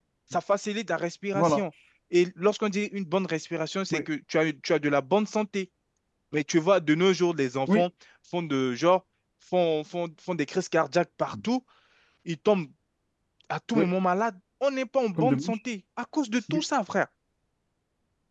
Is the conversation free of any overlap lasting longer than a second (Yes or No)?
Yes